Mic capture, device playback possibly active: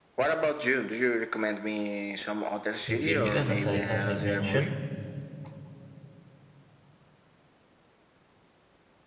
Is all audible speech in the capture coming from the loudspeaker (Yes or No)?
No